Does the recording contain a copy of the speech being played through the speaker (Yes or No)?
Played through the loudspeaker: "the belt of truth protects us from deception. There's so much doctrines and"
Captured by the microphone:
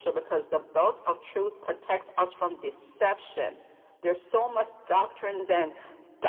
Yes